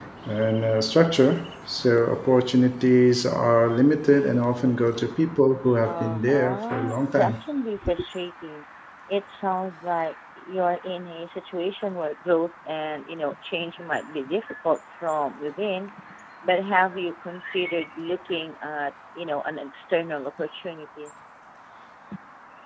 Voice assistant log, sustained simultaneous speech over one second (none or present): present